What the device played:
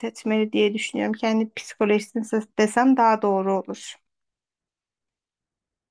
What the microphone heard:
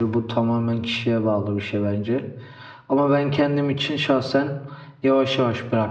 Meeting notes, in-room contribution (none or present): present